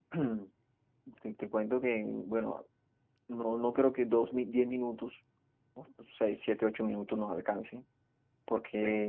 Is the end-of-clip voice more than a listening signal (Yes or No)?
No